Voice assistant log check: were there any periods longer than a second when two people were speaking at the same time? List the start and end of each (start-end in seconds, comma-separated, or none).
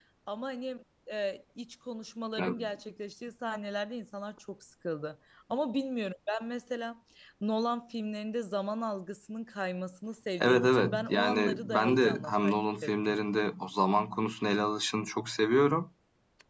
10.4-12.9